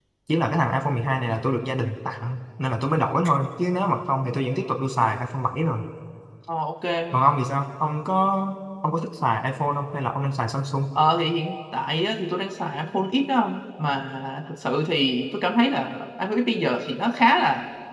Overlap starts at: none

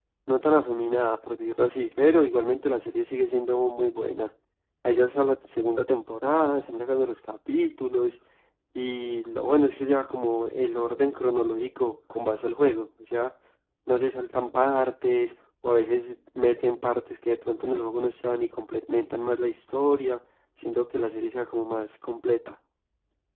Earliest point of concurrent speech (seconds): none

